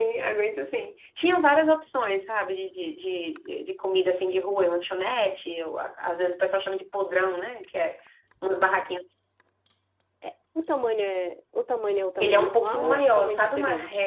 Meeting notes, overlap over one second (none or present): present